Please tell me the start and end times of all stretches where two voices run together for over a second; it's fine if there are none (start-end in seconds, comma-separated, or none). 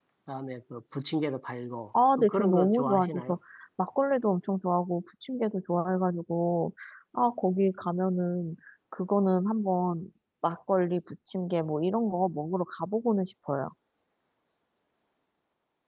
2.2-3.4